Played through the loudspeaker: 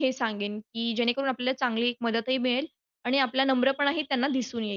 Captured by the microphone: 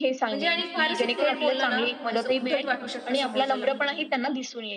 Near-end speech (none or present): present